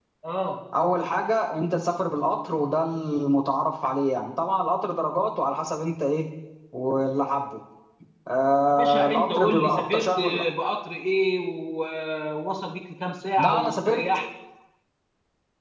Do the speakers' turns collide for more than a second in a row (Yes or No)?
Yes